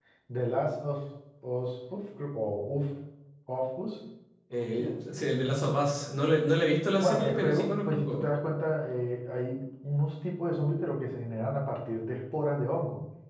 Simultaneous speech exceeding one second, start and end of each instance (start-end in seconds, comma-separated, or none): 7.0-8.3